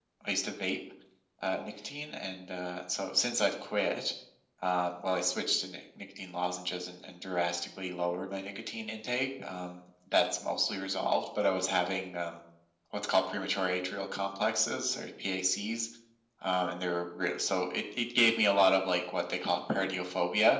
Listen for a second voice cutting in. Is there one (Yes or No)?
No